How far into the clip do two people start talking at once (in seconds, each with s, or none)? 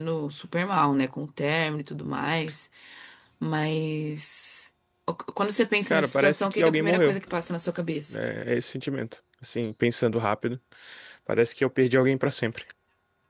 5.8 s